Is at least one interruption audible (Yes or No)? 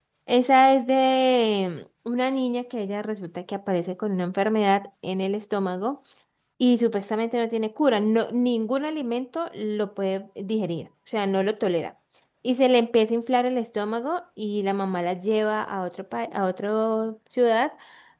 No